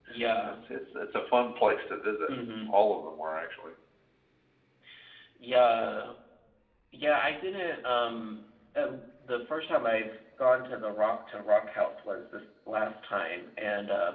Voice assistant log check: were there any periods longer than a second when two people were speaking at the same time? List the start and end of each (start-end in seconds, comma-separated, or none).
none